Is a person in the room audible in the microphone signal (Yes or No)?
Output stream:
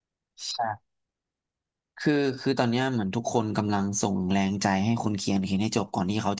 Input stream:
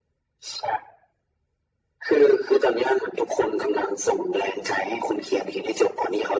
No